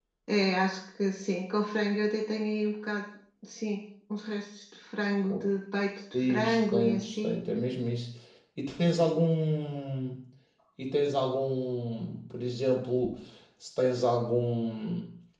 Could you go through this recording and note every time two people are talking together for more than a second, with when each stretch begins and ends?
6.1-7.3

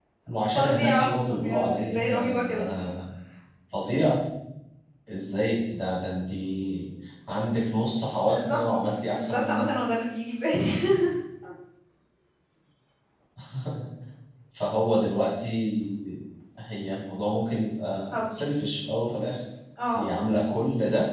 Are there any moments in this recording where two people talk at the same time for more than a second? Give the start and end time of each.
0.5-2.6

